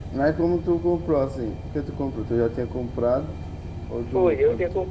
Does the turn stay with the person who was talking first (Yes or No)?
No